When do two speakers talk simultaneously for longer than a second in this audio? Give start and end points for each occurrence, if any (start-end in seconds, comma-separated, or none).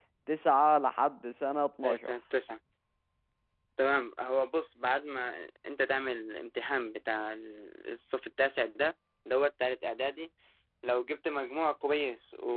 none